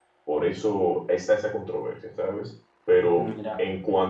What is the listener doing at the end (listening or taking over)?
listening